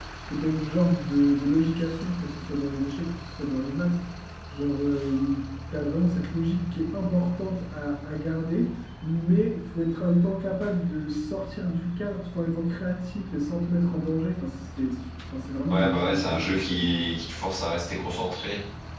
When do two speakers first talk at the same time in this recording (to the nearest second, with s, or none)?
16 s